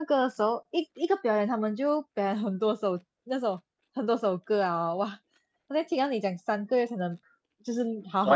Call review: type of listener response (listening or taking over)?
listening